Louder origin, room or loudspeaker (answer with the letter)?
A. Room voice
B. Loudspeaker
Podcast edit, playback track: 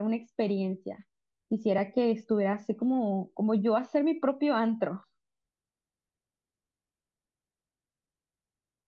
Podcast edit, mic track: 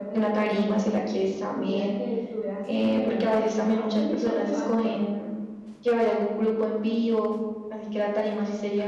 A